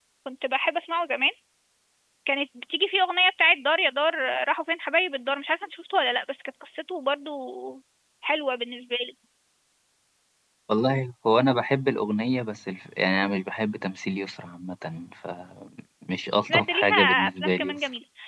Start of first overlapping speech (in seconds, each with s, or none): 16.5 s